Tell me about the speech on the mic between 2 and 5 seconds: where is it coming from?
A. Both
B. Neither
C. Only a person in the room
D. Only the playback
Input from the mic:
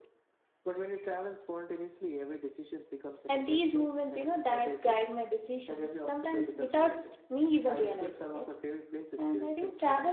A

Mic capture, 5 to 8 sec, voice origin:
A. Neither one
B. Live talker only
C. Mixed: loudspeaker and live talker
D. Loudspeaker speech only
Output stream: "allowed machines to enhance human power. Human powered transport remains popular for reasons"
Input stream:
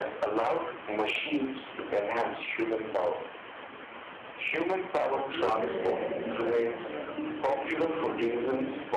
C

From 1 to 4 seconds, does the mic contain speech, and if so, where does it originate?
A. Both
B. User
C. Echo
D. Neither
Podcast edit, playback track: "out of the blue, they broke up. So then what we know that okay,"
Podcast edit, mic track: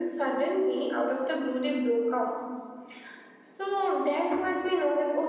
C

